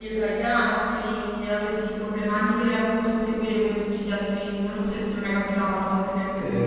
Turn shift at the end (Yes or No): Yes